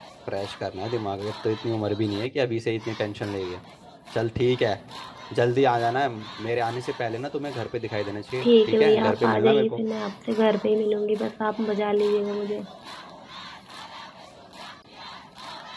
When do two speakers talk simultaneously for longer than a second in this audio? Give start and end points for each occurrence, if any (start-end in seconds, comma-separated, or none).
8.4-9.8